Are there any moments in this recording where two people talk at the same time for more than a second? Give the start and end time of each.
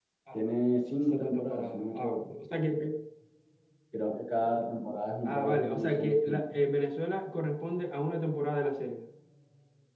1.0-2.3, 5.2-6.5

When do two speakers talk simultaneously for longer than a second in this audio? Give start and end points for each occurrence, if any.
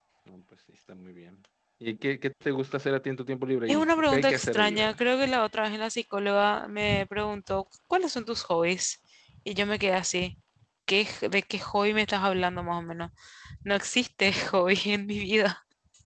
3.7-5.0

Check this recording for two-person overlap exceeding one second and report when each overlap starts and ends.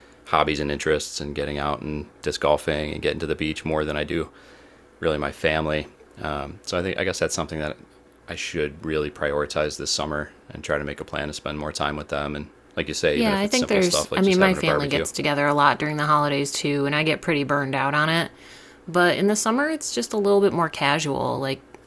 13.2-15.1

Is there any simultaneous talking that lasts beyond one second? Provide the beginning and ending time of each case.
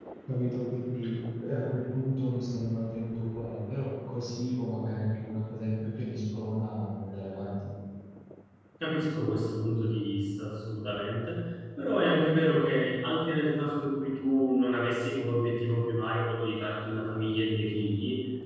none

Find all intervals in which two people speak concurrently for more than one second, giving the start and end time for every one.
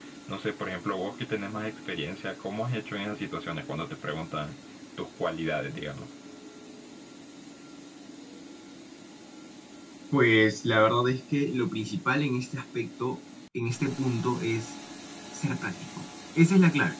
none

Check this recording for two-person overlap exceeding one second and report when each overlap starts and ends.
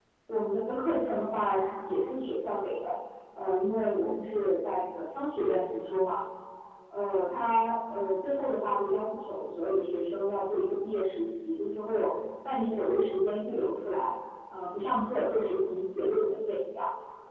none

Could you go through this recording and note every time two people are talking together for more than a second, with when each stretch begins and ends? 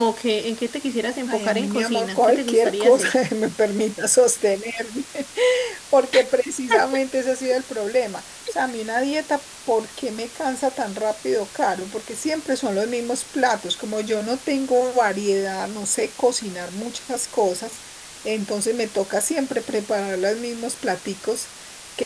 1.3-3.1

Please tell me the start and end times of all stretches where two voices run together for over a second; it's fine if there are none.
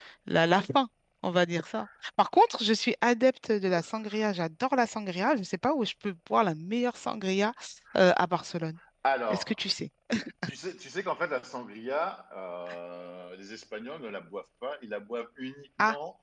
none

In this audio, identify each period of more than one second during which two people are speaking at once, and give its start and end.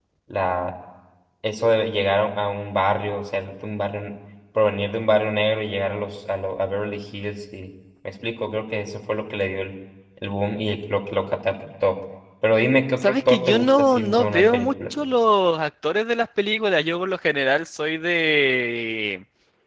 13.0-14.7

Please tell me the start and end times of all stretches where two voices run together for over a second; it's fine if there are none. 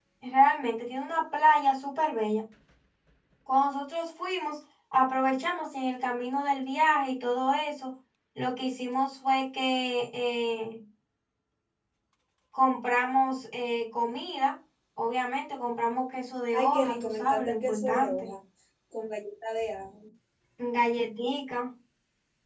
16.5-18.3

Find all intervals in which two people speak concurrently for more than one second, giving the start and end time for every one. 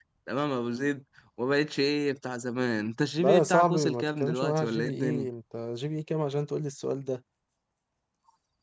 3.2-5.2

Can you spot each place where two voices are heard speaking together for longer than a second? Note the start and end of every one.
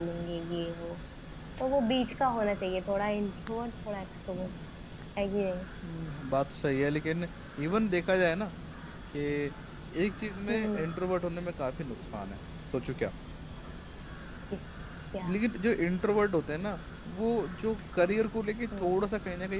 none

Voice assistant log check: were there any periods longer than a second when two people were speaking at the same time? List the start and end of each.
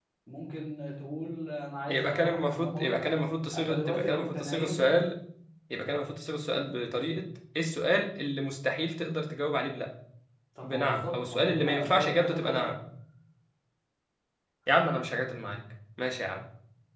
1.9-3.1, 3.6-4.8, 10.6-12.7

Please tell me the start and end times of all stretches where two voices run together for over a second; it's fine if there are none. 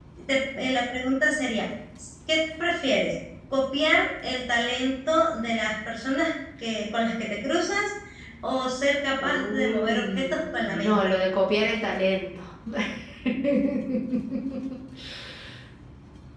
9.2-11.0

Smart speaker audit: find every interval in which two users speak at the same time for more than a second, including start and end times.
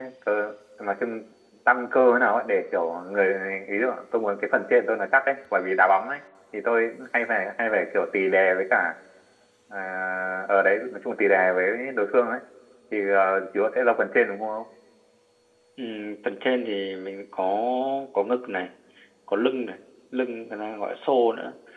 none

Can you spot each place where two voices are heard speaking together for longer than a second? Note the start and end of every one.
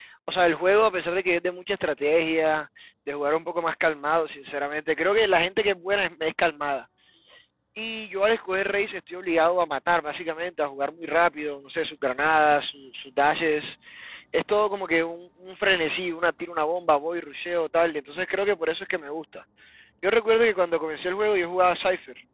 none

